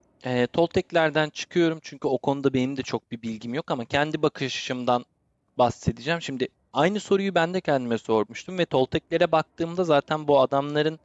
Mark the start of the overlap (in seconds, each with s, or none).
none